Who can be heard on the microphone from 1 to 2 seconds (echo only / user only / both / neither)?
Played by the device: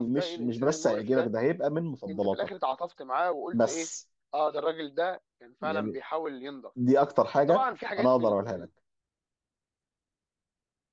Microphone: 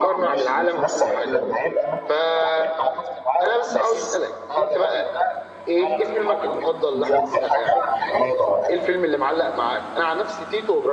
both